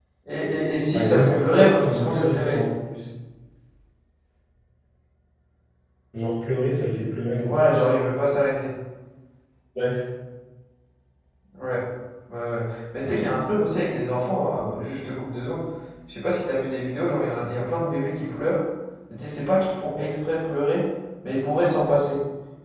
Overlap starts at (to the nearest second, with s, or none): 1 s